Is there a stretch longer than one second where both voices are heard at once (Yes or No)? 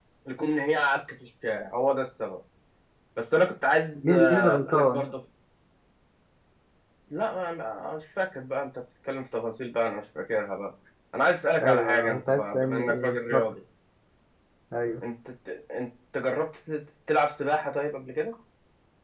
Yes